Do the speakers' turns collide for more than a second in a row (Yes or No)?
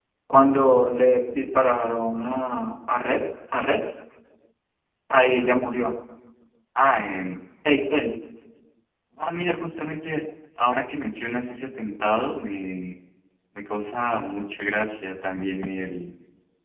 No